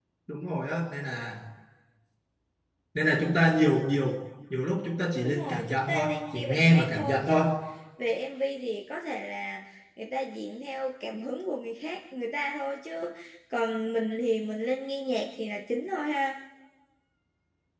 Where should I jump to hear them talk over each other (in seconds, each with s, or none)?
5.2 s